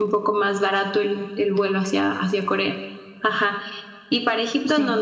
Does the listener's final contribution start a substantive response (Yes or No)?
No